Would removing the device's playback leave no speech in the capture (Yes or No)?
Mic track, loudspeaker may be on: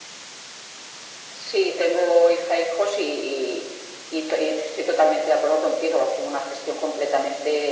Yes